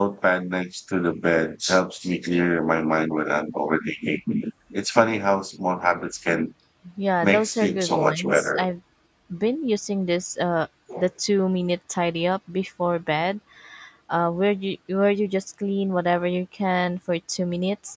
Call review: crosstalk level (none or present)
present